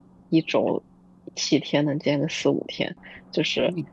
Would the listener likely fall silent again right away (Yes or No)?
Yes